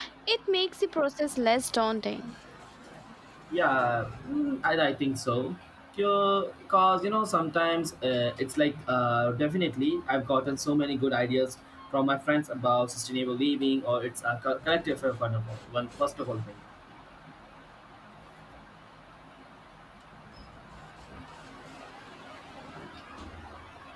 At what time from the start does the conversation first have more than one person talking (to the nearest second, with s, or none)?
none